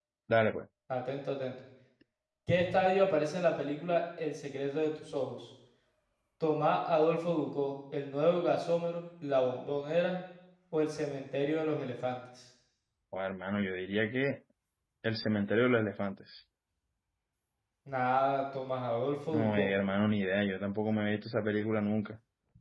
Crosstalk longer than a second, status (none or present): none